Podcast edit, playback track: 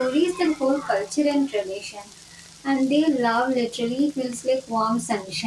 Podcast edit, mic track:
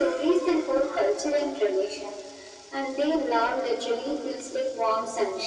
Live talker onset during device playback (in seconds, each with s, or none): none